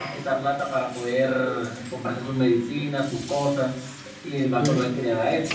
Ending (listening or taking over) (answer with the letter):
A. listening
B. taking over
A